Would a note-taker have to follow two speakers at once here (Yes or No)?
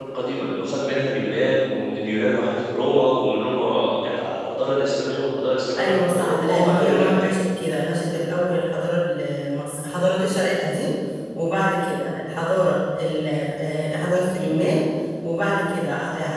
Yes